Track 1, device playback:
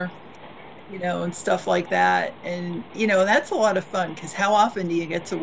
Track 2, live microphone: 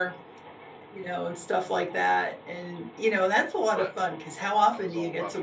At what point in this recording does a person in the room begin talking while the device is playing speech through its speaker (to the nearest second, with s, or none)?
4 s